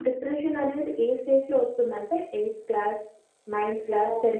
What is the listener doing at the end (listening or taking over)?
taking over